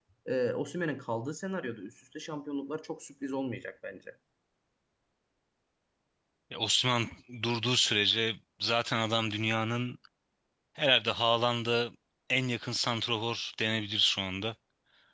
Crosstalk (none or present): none